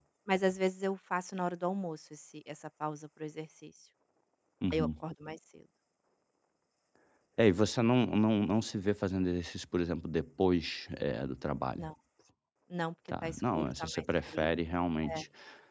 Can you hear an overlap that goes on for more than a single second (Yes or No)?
Yes